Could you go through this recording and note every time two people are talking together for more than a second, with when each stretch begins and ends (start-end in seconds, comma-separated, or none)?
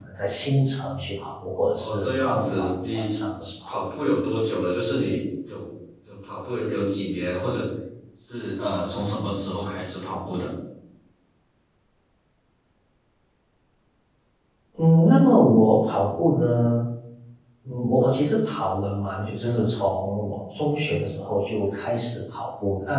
1.8-3.0